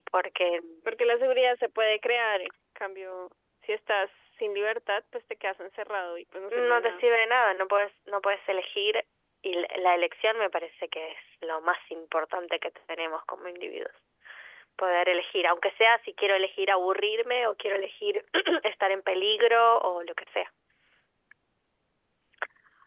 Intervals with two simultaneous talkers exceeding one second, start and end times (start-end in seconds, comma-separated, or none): none